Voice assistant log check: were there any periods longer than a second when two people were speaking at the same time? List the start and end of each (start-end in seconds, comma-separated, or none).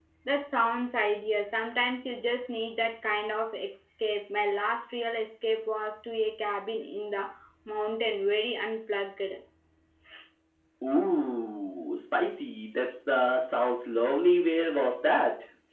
none